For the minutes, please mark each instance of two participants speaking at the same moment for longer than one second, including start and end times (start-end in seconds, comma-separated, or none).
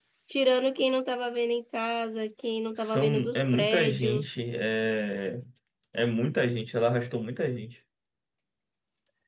2.8-4.5